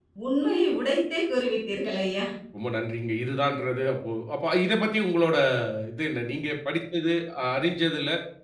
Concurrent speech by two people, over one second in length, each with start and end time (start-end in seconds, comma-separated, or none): none